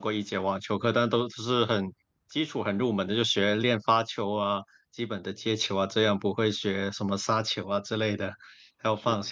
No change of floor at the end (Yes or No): Yes